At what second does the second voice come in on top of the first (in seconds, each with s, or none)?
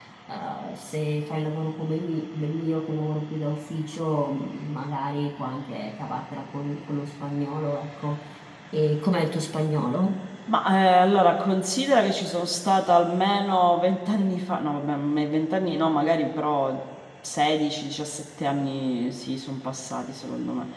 none